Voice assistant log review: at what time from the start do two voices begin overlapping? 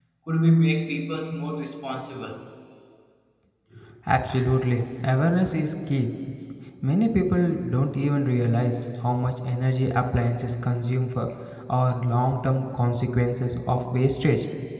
none

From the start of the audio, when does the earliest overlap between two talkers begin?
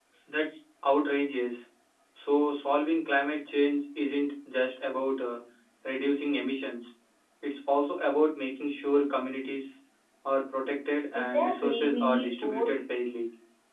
11.1 s

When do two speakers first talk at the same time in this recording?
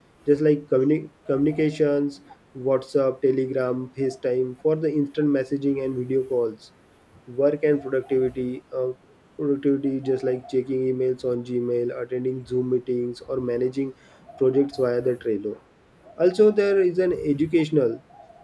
none

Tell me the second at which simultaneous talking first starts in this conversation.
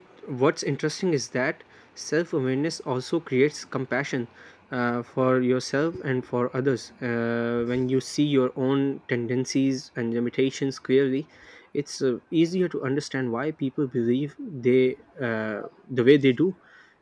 none

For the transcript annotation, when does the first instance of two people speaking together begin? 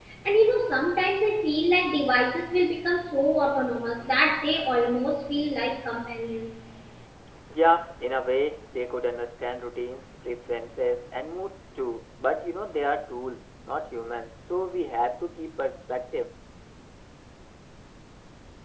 none

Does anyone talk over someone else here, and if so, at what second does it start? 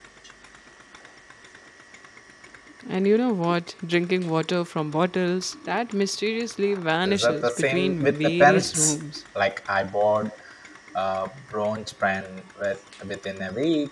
7.0 s

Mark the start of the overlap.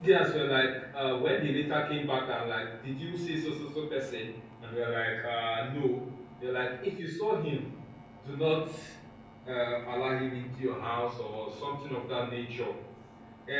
none

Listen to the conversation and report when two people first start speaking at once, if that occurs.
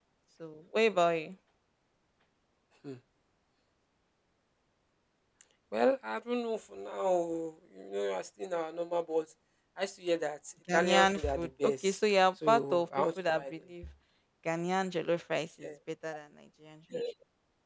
10.7 s

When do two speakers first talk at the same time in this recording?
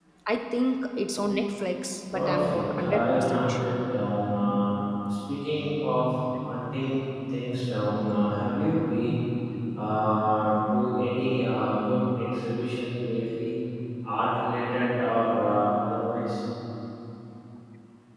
2.1 s

